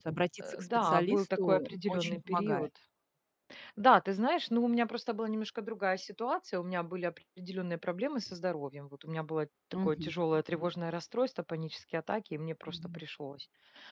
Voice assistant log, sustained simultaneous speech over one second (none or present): present